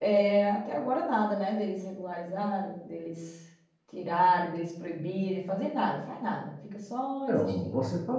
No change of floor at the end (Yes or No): No